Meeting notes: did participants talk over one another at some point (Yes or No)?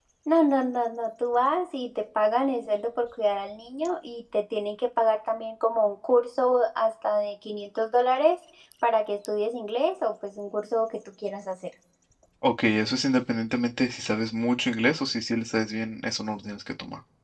No